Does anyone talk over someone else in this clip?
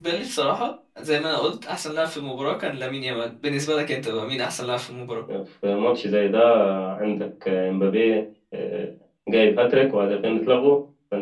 No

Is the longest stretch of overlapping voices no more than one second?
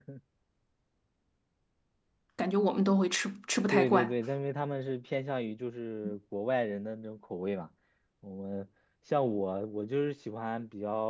Yes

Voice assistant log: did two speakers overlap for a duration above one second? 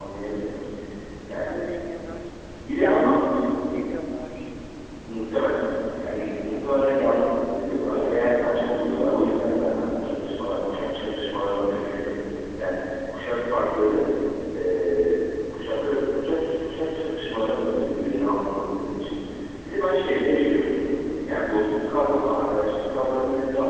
No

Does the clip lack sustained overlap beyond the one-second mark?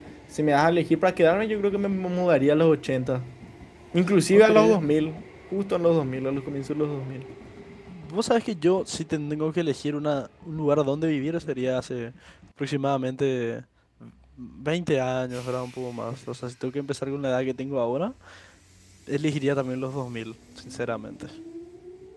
Yes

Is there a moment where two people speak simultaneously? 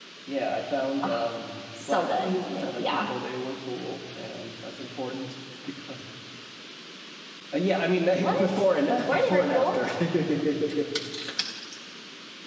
Yes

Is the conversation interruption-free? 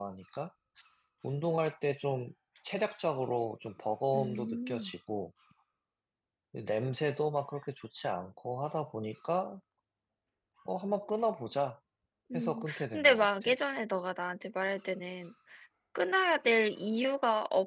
No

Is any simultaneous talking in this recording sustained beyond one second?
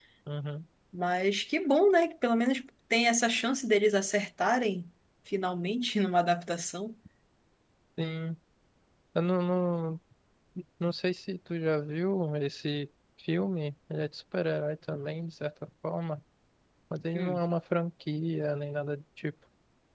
No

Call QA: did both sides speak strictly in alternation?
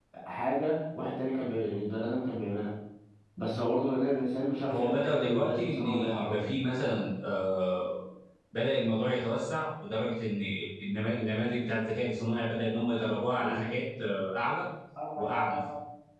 No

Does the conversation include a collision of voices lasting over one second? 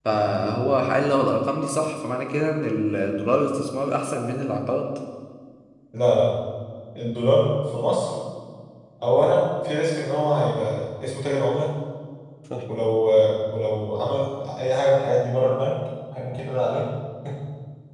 No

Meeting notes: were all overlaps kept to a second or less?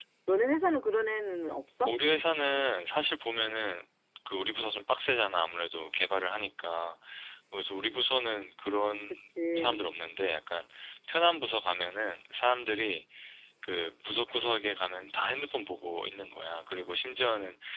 Yes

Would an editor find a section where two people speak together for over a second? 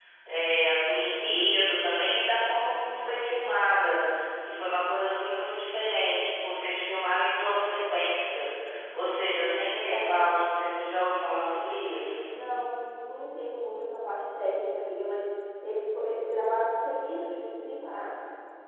No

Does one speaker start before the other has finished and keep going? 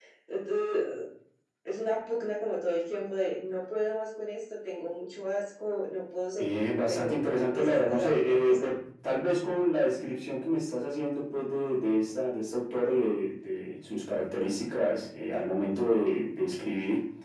Yes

